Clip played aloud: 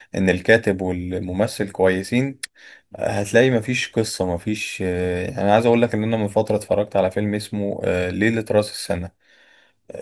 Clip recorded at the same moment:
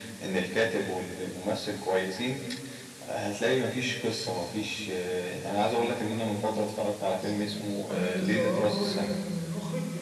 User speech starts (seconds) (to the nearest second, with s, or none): 7 s